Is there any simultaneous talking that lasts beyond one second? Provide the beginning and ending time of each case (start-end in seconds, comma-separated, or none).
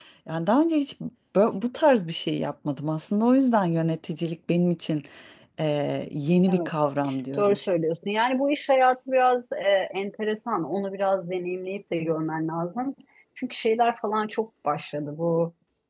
none